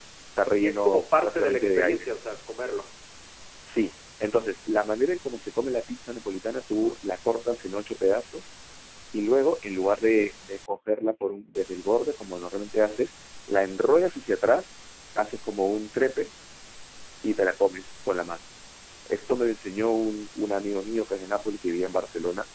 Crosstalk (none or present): present